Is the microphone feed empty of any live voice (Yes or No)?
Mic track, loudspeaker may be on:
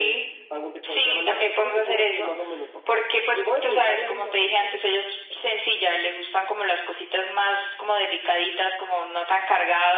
Yes